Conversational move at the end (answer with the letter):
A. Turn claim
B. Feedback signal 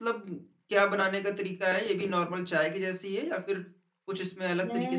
A